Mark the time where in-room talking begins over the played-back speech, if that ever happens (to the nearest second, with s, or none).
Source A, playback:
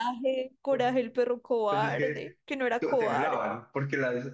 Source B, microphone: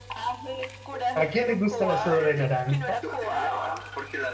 1 s